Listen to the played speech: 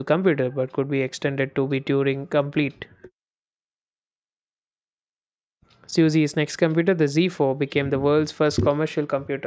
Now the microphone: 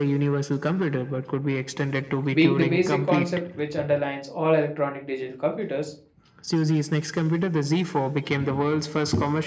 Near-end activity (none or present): present